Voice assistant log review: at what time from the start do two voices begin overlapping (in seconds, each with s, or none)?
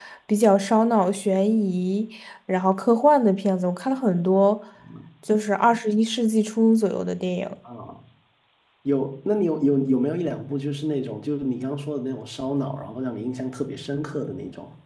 none